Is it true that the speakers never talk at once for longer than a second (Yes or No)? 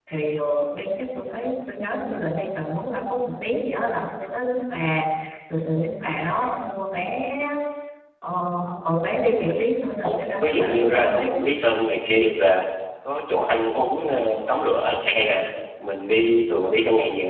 No